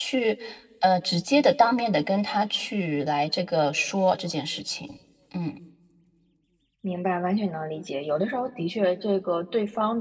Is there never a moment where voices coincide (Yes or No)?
Yes